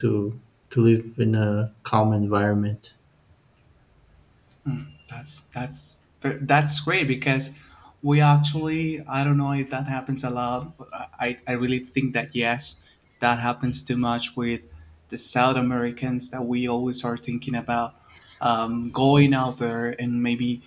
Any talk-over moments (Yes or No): No